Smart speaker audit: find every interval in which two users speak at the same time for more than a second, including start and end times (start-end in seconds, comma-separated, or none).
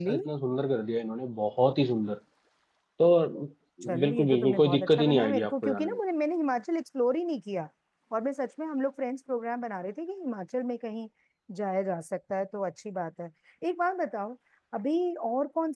4.0-6.0